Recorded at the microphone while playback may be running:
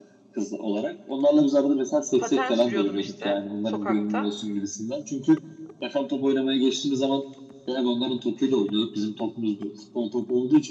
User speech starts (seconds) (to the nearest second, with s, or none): 2 s